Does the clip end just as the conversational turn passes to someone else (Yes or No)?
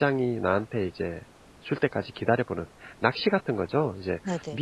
No